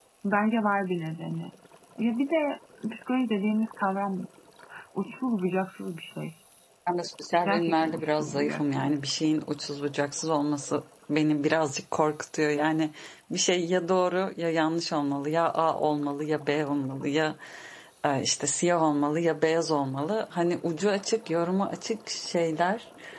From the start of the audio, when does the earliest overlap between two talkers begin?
7.5 s

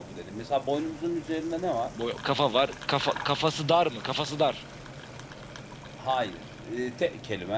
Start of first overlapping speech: none

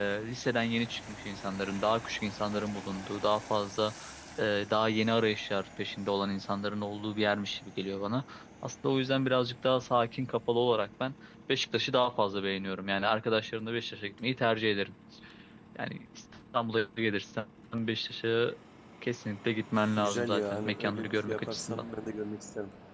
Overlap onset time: 20.0 s

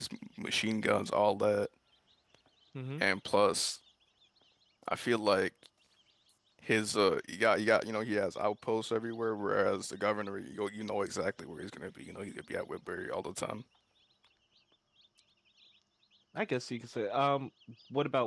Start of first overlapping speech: none

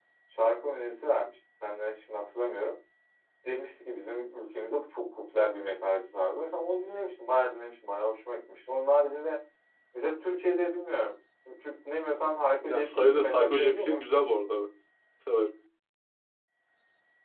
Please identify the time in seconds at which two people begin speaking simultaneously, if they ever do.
12.6 s

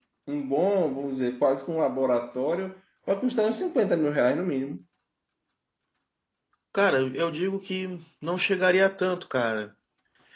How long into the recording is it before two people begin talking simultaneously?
none

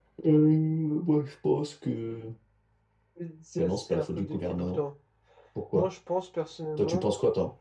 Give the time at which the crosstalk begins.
3.6 s

